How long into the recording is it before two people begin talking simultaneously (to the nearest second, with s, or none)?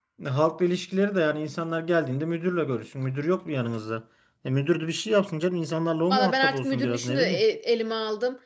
6 s